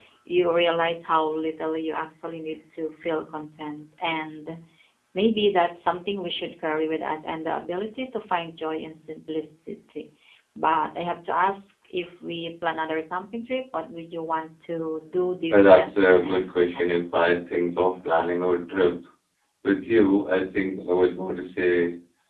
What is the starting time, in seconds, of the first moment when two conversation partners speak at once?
15.5 s

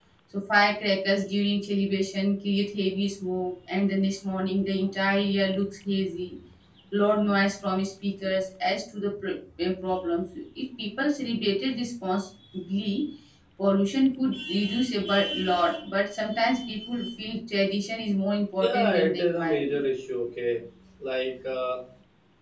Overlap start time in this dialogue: 18.6 s

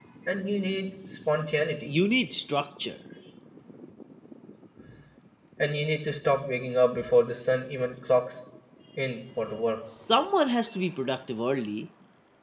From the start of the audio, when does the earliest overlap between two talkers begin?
none

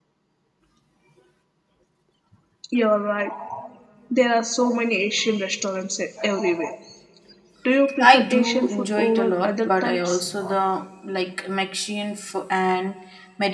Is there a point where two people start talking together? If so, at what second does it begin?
8.0 s

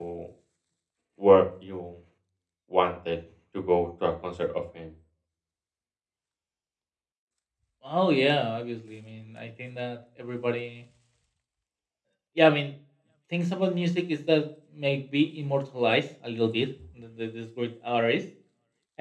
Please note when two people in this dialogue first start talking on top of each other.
none

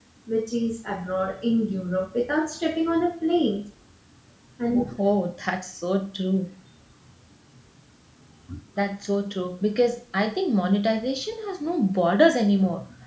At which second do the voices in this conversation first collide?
none

